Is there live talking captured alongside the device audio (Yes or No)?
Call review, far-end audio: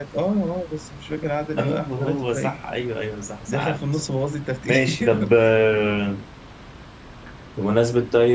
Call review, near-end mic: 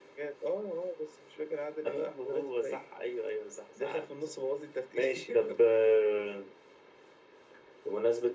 No